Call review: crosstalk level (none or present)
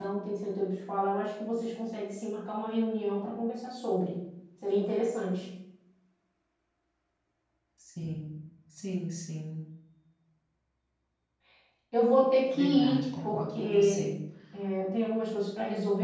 present